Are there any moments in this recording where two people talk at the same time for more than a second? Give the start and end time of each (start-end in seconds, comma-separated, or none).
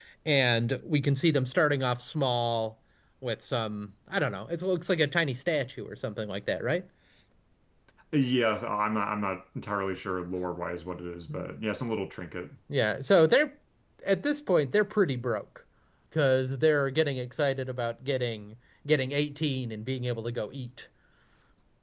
none